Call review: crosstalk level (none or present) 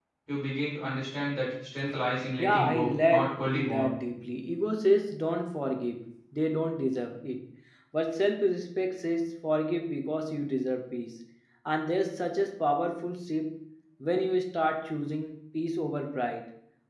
present